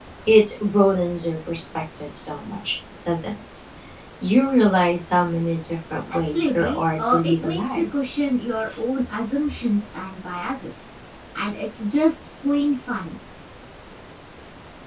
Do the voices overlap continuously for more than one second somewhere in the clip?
Yes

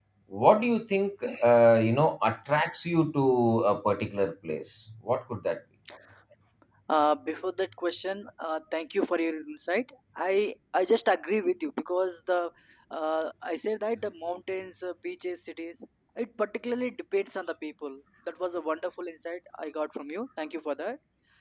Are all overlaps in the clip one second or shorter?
Yes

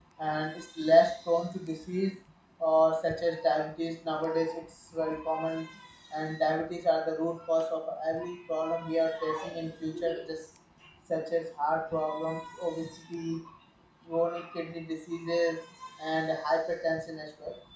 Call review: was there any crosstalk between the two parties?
No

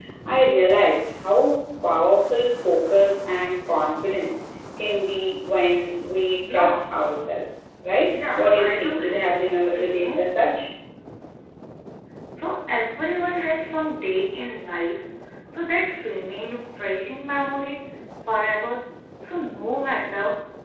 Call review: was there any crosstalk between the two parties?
Yes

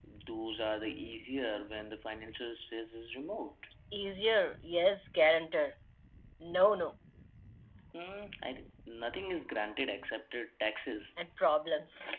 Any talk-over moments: No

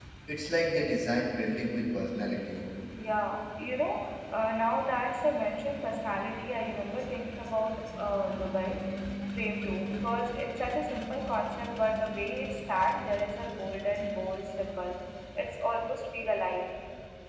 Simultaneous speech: No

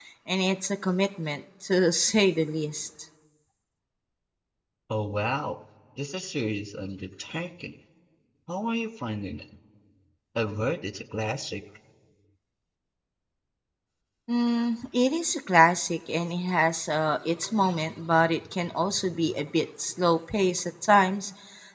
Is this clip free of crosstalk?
Yes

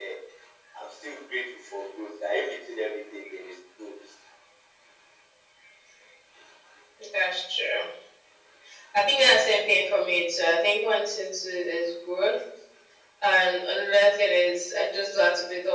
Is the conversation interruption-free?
Yes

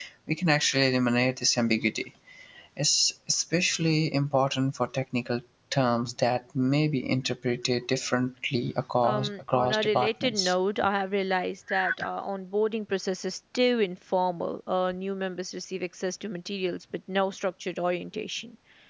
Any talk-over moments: Yes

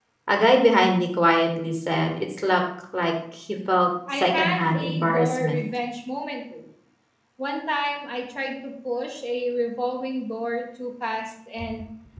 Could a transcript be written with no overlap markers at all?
No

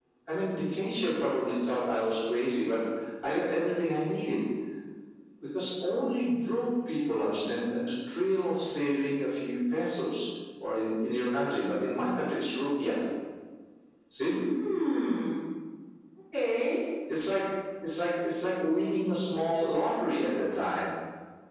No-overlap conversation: Yes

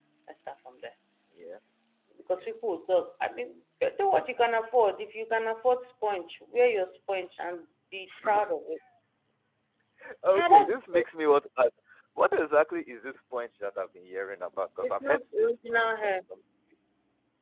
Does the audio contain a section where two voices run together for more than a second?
Yes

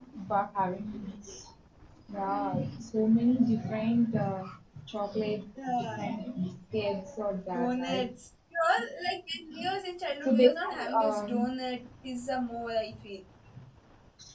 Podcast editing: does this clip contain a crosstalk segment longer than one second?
Yes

